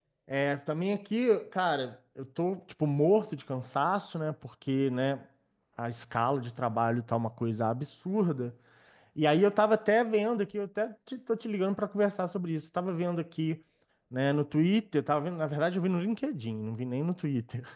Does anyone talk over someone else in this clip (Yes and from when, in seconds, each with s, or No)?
No